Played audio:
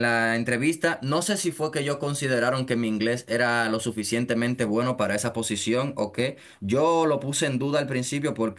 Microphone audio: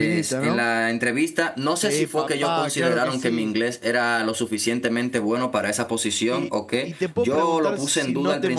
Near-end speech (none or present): present